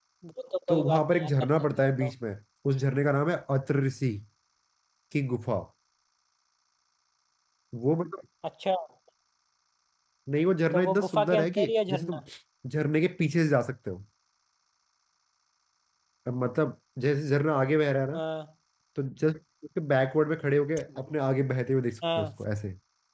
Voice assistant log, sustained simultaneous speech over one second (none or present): present